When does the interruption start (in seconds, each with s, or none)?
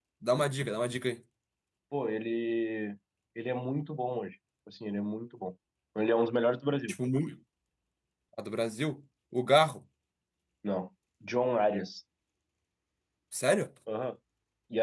none